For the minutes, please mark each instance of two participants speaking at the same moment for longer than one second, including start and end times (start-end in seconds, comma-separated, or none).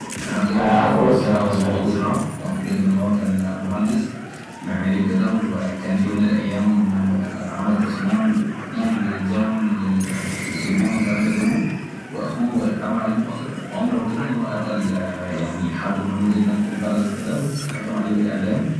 0.5-2.1